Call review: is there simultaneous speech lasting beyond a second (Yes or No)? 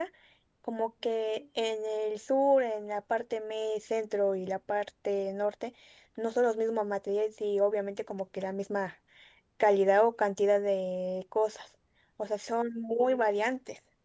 No